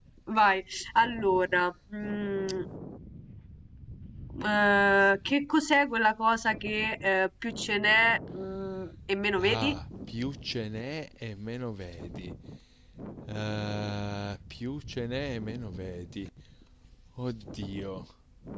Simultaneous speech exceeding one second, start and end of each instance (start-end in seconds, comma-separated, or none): none